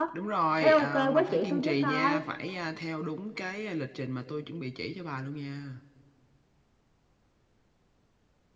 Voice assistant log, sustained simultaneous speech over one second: present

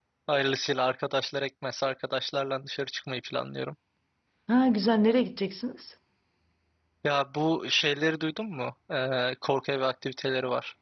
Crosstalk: none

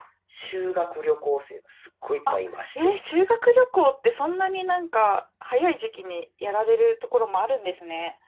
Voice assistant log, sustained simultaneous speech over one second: none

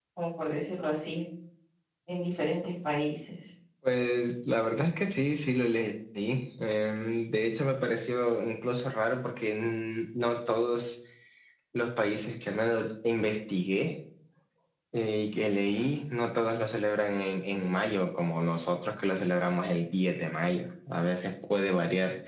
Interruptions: none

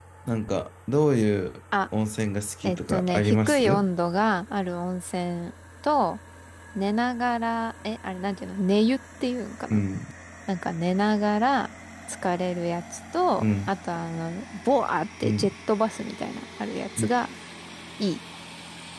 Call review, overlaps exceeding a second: present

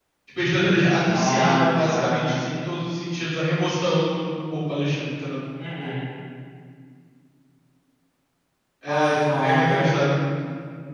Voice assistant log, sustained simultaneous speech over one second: present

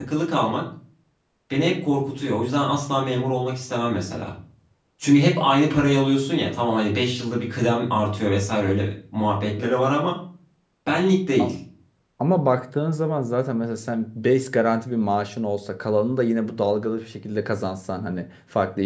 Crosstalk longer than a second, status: none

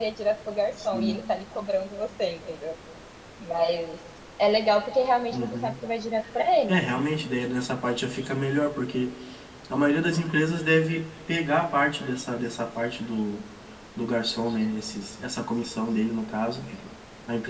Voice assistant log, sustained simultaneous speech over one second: none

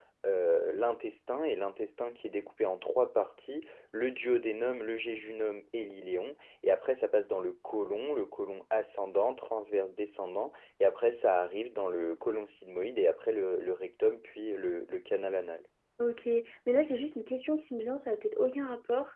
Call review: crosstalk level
none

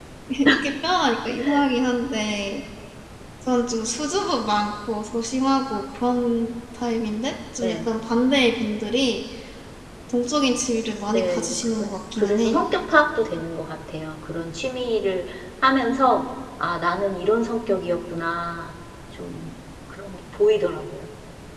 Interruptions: present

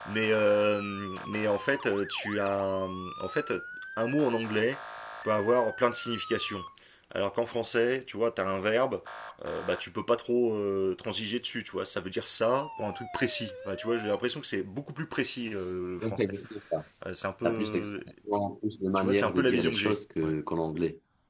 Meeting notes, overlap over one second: present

